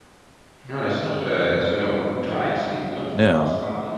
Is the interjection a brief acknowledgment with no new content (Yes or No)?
Yes